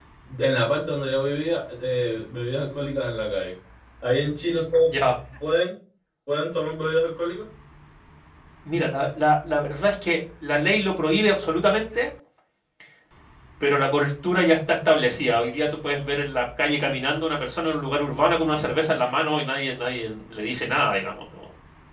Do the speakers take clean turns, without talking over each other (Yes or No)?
Yes